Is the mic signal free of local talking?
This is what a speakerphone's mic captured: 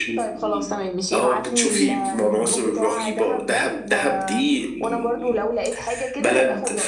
No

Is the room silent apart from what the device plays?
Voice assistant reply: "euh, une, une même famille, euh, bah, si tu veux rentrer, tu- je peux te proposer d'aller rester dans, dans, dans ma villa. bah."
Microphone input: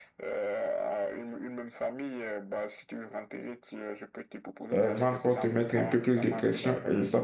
No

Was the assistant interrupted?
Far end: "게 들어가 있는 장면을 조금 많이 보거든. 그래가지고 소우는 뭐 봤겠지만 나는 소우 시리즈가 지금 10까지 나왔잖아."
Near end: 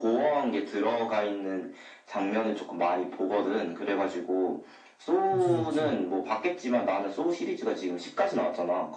Yes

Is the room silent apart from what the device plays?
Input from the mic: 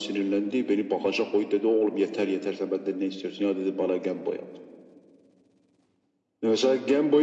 Yes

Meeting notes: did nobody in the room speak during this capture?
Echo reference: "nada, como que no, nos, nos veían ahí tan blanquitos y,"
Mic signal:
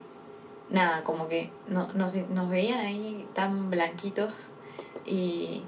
Yes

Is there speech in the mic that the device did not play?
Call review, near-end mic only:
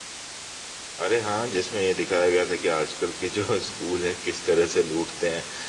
Yes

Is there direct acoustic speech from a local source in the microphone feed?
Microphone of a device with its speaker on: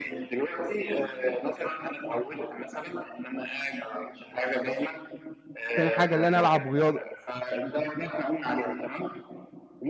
Yes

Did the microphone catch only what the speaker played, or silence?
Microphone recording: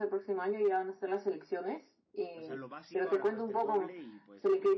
No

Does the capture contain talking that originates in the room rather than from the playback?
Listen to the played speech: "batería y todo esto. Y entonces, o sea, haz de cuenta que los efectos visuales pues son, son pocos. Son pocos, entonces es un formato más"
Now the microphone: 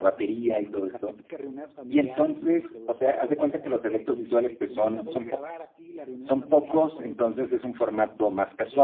Yes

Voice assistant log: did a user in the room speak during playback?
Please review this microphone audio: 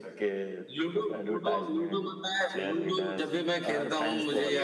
No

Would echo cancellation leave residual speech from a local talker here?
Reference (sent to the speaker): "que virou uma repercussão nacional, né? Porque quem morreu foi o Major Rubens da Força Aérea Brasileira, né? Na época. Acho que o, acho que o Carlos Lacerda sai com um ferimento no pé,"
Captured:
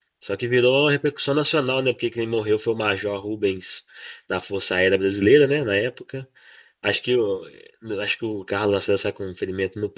No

